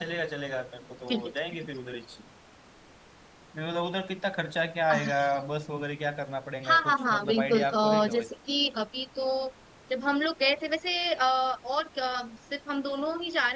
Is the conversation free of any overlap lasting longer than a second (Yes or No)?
No